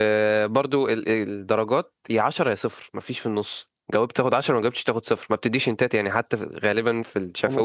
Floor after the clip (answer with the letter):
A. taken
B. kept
A